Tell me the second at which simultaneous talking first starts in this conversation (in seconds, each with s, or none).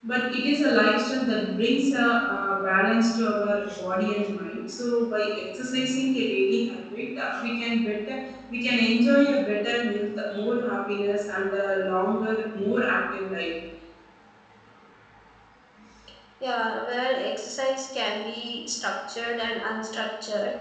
none